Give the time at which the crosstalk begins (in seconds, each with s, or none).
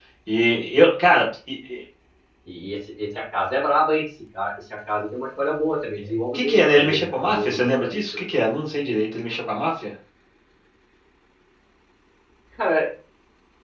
6.3 s